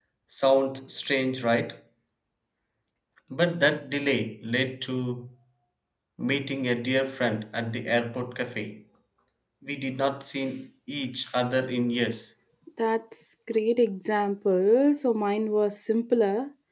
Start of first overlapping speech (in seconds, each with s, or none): none